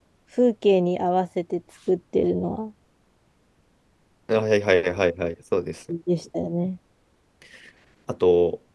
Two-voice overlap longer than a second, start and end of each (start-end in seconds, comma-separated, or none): none